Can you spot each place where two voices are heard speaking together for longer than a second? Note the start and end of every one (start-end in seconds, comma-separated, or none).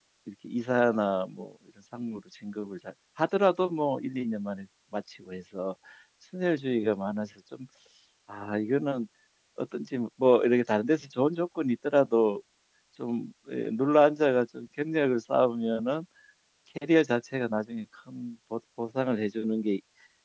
none